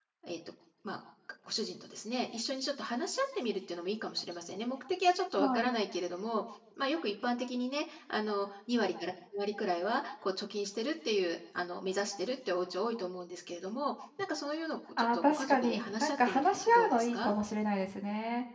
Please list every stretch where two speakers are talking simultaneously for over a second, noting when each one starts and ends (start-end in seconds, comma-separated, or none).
15.0-17.3